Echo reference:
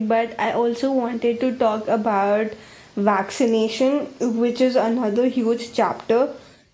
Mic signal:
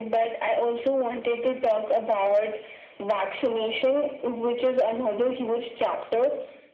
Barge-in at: none

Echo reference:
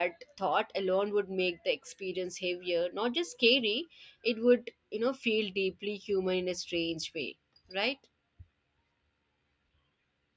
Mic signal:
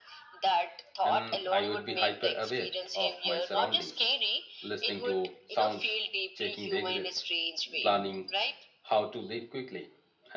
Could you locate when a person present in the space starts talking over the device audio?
1.0 s

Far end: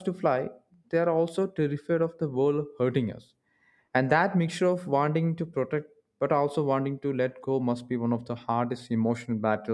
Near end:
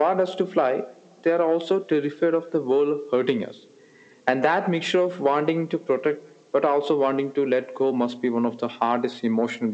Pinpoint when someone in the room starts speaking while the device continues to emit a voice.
none

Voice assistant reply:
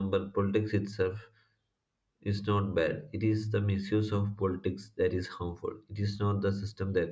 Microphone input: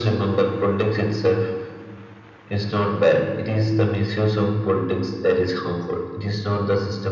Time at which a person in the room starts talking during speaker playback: none

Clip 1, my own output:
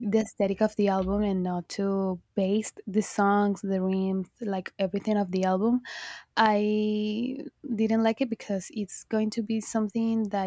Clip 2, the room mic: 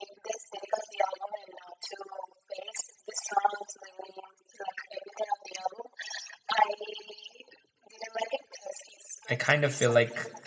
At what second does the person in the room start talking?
9.3 s

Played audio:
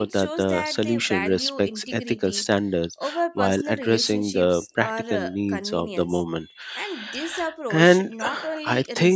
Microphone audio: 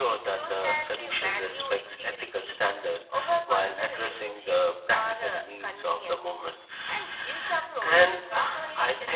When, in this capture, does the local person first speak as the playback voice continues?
none

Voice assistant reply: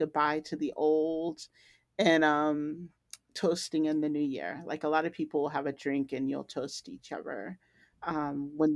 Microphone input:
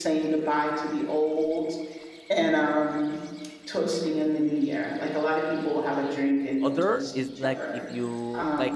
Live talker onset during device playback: 6.6 s

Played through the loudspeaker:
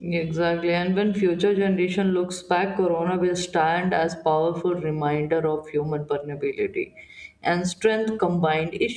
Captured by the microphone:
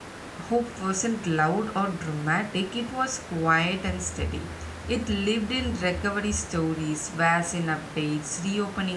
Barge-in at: 0.5 s

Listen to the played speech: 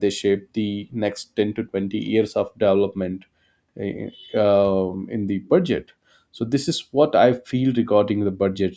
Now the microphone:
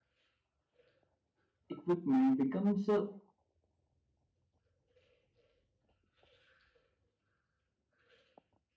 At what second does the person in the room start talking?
1.7 s

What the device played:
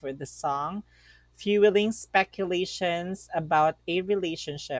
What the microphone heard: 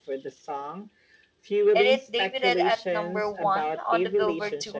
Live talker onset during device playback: 1.7 s

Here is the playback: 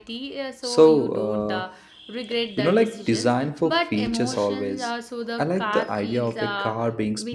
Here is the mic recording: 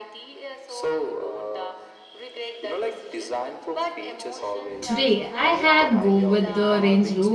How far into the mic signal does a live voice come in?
4.8 s

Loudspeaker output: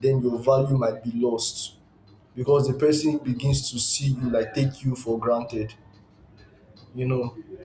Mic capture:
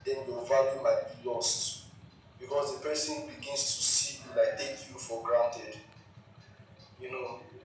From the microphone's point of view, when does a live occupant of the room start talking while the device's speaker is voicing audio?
none

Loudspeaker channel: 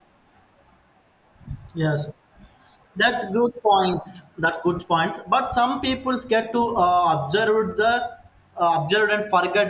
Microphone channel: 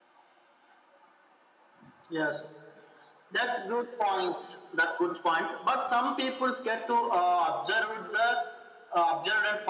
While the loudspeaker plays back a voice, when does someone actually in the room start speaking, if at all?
none

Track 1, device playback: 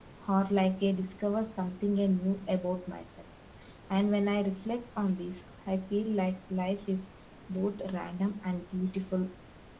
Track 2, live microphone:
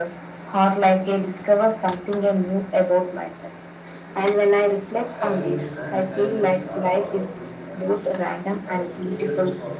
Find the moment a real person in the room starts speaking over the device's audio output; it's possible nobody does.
4.9 s

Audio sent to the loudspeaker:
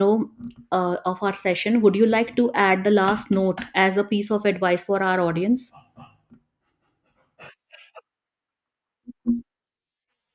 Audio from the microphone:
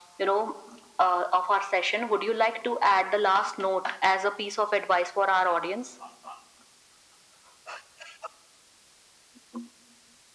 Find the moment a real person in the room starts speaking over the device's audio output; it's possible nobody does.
none

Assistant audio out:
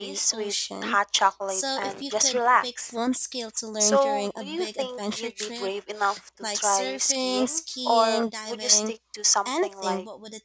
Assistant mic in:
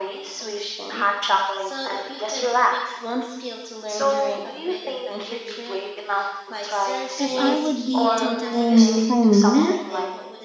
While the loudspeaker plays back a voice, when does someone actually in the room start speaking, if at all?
7.2 s

